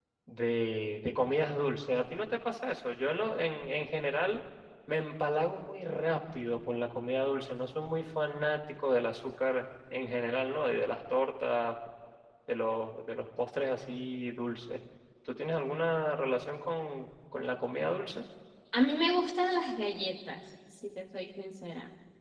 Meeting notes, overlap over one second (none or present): none